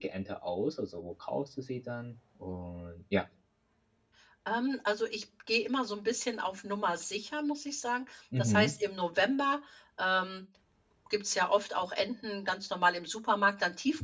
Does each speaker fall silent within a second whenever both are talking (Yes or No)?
Yes